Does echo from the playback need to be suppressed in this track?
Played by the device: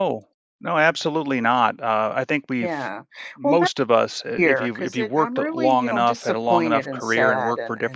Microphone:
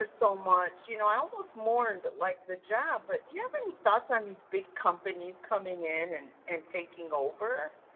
No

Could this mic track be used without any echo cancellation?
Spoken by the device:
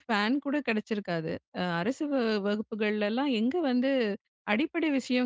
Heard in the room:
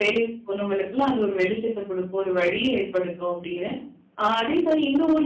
Yes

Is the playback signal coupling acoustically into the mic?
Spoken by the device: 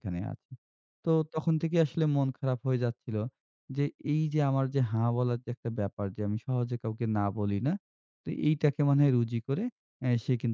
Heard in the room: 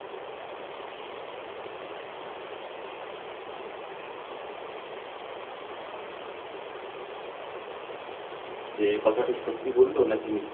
No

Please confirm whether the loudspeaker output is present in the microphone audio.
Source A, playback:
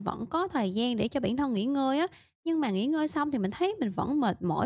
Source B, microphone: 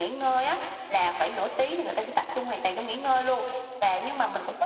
No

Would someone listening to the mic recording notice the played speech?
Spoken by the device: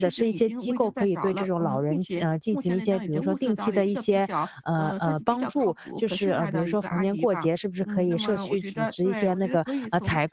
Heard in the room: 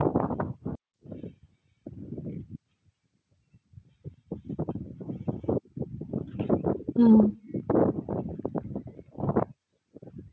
No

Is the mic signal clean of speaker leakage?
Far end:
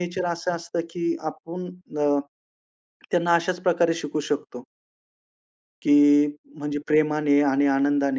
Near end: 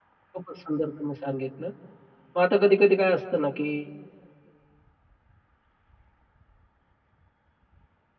Yes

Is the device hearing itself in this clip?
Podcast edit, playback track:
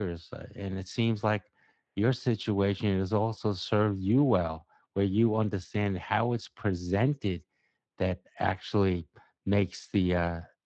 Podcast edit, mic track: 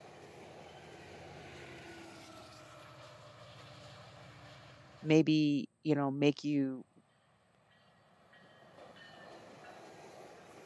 No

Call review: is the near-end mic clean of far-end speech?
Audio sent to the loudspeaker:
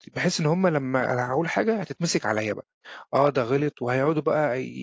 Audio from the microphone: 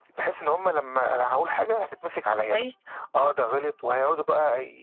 No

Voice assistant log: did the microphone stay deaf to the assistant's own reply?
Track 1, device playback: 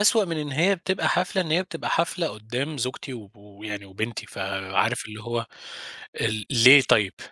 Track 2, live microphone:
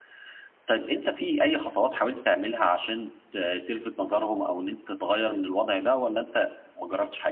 Yes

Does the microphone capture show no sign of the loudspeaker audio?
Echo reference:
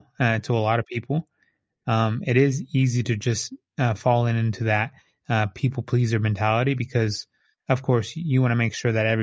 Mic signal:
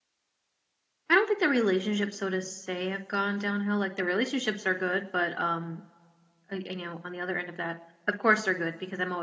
Yes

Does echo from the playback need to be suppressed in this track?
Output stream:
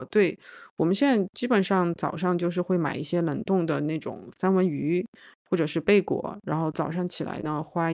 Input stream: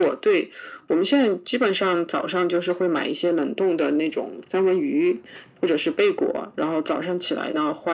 Yes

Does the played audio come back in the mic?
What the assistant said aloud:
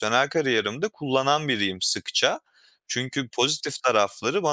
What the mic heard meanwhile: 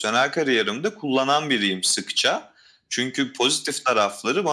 Yes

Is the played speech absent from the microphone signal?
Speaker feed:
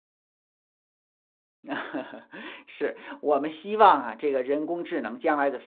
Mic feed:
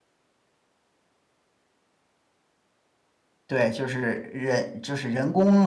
Yes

